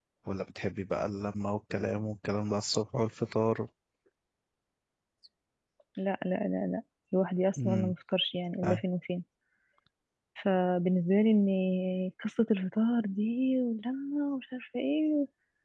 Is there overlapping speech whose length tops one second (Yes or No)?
No